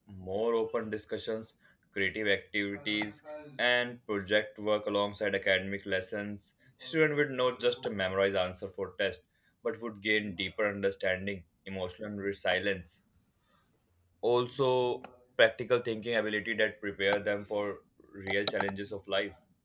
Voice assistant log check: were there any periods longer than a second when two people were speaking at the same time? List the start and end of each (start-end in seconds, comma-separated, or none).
none